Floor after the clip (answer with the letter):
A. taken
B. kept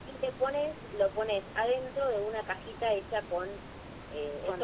B